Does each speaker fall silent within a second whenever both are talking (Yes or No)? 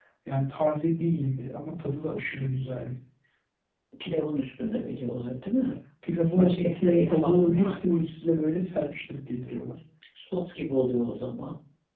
No